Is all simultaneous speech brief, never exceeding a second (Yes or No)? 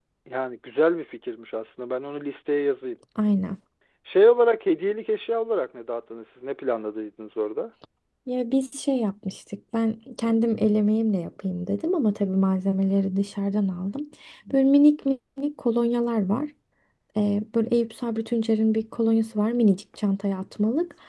Yes